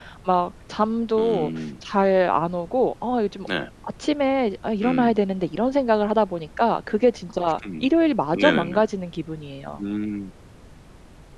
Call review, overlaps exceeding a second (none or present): none